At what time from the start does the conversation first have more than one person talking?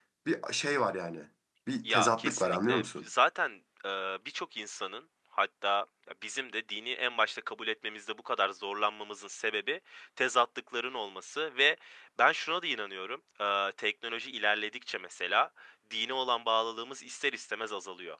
1.8 s

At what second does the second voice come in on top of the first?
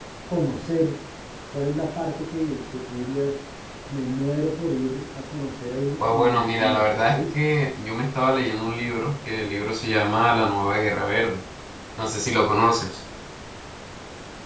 6.0 s

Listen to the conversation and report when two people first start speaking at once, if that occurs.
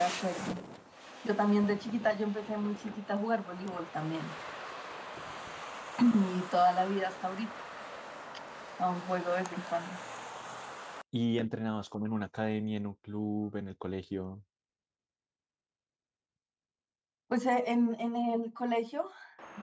none

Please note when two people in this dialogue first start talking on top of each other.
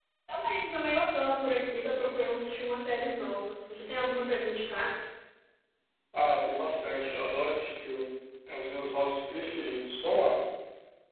none

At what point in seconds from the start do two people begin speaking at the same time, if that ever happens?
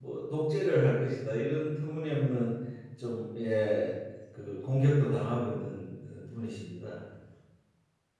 none

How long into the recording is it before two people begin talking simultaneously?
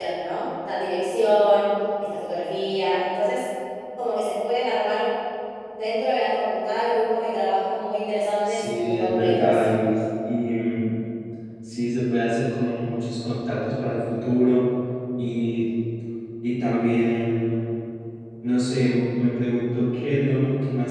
8.4 s

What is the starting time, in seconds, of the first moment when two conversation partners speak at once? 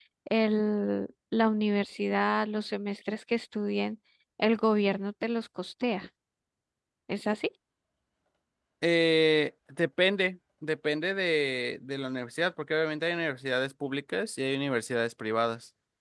none

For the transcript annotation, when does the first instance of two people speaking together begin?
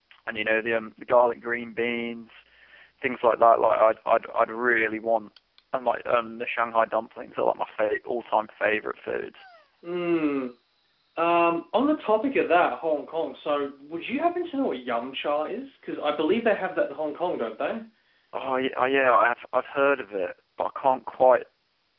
none

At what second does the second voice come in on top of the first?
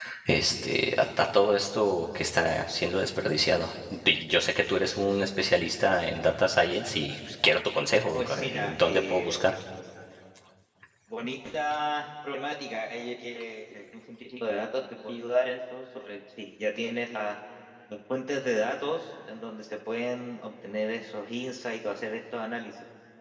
8.1 s

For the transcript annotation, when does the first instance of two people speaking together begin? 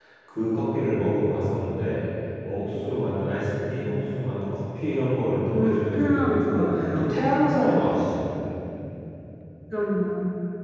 5.5 s

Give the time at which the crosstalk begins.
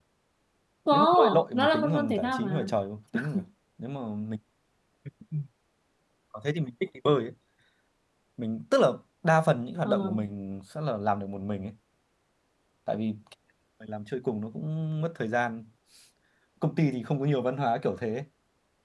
0.9 s

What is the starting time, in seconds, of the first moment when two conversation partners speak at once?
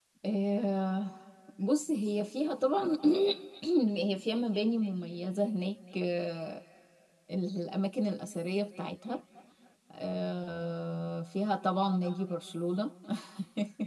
none

